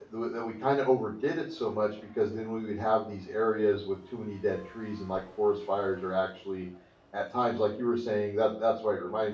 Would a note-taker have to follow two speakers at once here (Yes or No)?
No